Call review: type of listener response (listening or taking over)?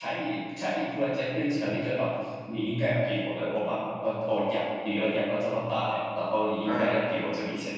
listening